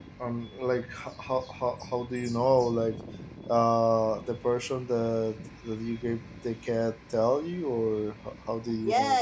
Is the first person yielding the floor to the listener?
Yes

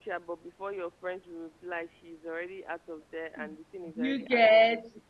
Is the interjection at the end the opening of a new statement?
Yes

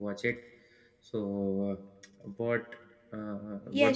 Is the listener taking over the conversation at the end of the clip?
Yes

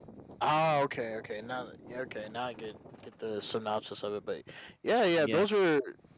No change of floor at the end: Yes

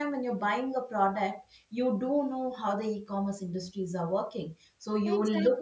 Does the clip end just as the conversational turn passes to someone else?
No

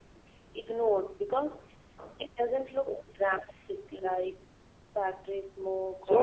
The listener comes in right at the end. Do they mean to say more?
Yes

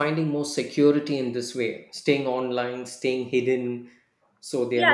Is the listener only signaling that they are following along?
No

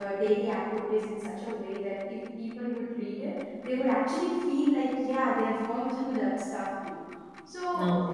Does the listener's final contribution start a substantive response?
No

